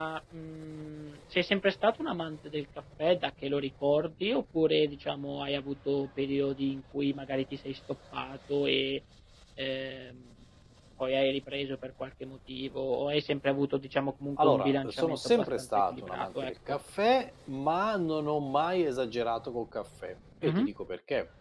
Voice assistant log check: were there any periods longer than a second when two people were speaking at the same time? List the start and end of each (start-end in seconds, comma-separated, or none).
14.4-16.5